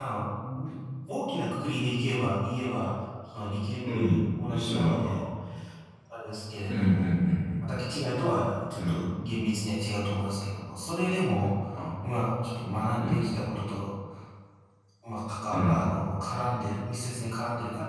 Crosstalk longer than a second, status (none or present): present